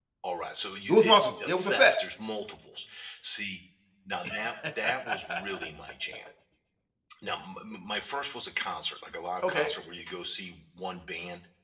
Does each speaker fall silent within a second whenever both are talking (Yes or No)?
No